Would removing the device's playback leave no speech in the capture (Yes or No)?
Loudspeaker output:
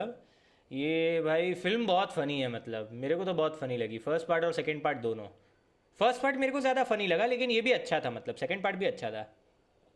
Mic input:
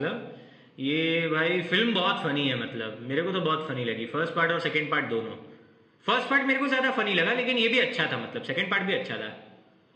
Yes